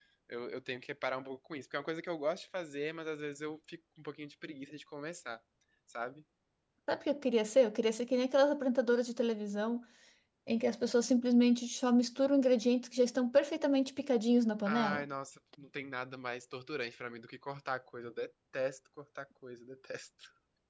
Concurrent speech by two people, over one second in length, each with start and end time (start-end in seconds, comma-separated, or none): none